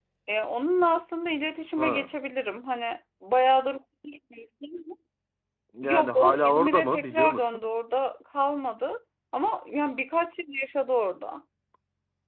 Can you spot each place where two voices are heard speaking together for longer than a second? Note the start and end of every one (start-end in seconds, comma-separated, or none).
5.8-7.6